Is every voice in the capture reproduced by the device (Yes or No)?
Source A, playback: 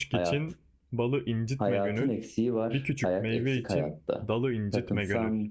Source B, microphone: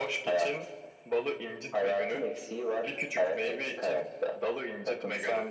Yes